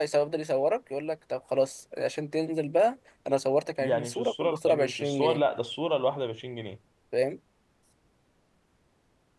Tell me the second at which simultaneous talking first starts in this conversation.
3.8 s

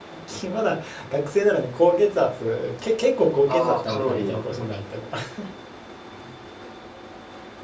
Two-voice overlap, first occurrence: 3.5 s

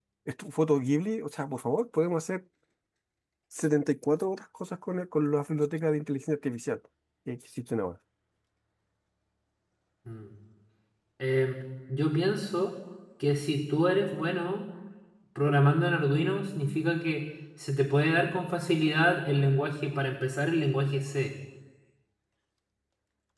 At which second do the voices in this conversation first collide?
none

